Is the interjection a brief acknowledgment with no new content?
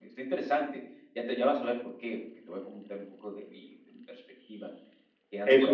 No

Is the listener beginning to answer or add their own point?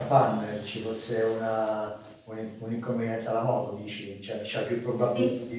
Yes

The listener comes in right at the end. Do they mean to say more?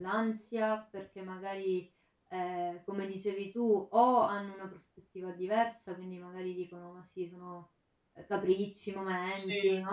No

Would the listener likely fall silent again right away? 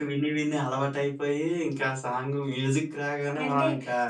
No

